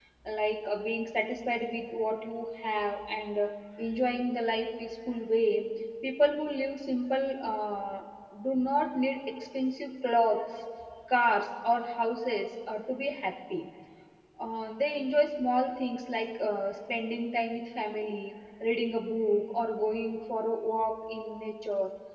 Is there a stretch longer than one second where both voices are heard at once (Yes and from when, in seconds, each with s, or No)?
No